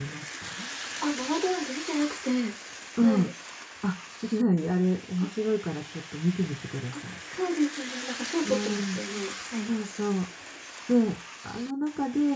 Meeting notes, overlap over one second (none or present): none